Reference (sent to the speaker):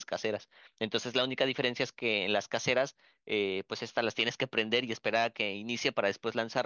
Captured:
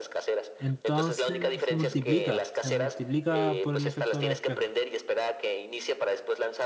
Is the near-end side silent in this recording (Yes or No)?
No